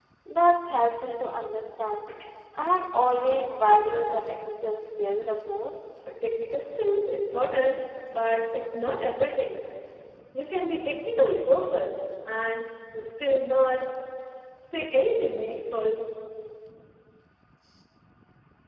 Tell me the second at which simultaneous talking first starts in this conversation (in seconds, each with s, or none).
none